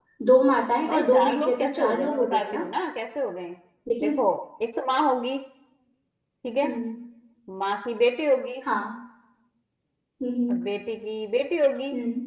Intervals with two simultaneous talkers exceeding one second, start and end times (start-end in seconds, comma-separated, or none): 0.9-2.6